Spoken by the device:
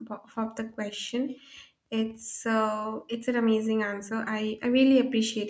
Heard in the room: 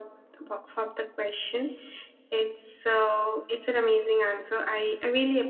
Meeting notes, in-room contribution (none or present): none